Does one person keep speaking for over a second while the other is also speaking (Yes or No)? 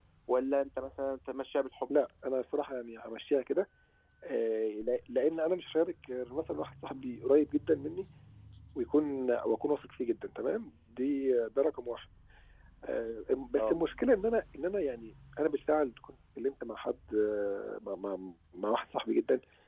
No